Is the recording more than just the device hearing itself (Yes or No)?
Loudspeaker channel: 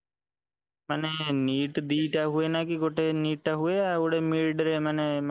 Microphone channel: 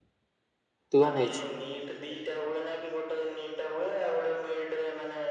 Yes